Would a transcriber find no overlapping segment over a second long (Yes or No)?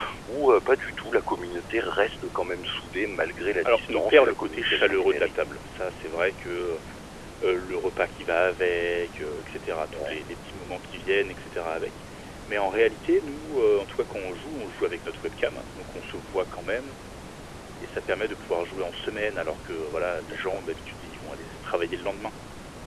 No